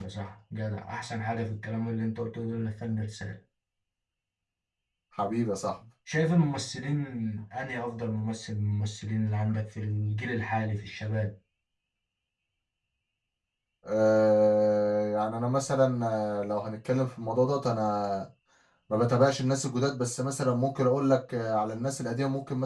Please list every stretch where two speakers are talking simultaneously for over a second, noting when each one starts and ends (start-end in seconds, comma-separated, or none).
none